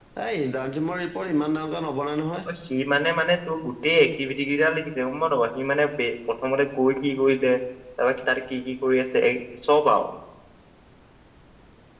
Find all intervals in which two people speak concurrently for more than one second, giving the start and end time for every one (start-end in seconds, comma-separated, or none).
none